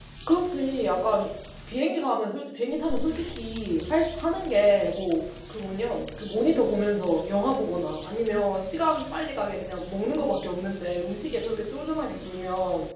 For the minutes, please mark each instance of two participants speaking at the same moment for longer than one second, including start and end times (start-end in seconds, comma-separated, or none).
none